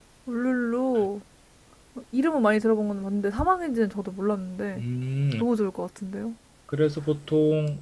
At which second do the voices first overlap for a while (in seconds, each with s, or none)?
none